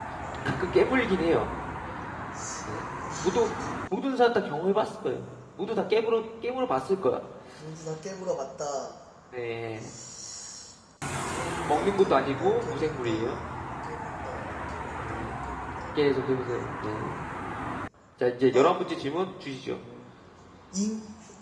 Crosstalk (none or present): present